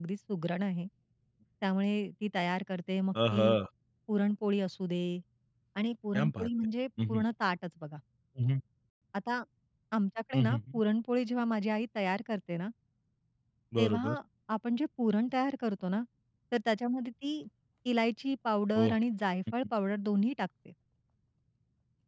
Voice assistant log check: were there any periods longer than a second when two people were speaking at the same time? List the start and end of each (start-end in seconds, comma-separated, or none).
none